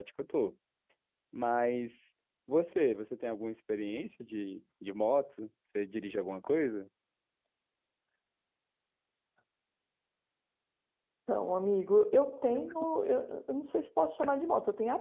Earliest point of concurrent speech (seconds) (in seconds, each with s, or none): none